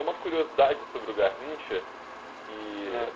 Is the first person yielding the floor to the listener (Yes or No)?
No